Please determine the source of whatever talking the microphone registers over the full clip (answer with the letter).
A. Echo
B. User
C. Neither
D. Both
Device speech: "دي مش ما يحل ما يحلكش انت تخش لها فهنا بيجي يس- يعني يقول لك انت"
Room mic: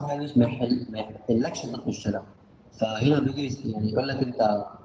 D